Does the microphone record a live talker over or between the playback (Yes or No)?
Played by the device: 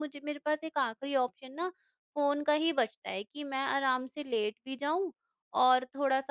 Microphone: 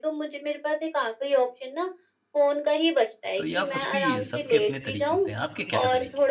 Yes